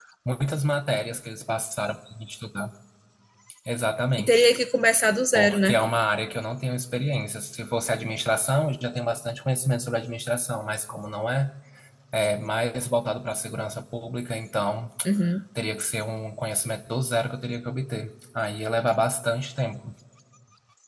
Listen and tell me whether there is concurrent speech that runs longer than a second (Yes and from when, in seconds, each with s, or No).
No